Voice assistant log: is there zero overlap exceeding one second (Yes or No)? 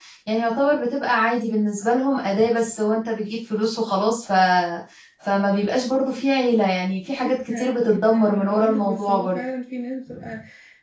No